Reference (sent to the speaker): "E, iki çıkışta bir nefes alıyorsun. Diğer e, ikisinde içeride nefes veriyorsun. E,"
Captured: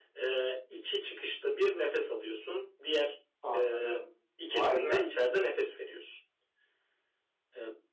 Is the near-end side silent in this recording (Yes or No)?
No